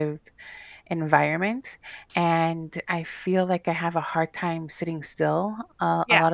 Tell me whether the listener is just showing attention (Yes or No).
Yes